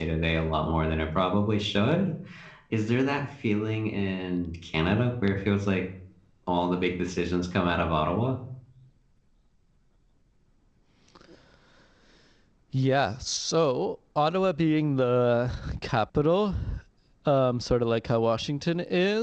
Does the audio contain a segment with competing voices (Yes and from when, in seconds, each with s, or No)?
No